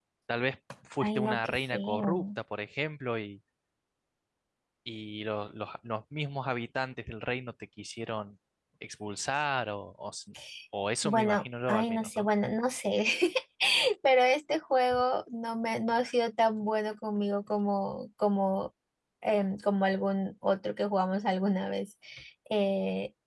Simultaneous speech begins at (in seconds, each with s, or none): 1.0 s